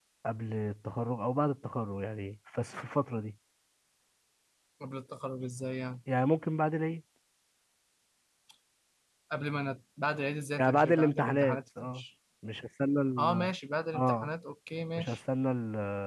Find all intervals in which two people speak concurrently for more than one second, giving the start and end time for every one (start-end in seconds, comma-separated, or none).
10.6-12.0